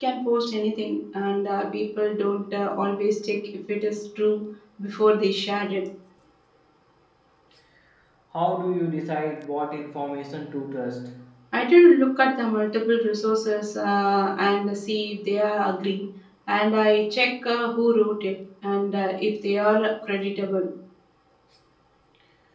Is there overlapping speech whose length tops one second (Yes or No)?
No